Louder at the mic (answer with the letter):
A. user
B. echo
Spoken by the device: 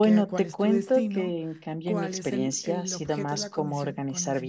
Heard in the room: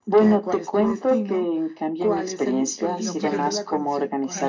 B